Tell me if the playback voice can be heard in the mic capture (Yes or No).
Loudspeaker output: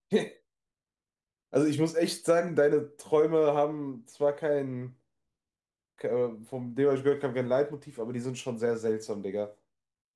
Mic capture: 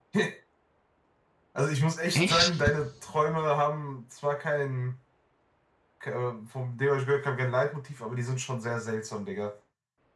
Yes